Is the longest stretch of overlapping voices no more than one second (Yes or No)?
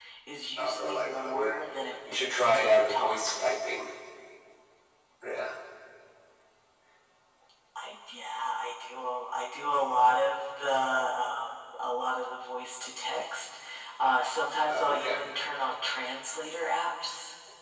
No